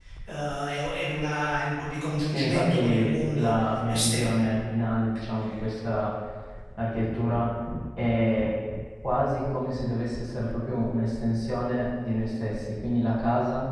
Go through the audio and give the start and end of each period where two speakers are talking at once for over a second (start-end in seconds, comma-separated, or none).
2.3-4.4